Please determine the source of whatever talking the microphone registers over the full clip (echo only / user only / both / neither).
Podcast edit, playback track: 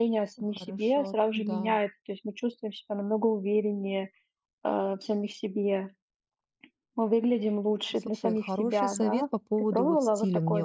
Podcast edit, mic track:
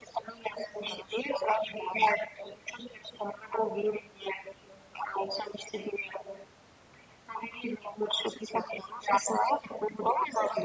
echo only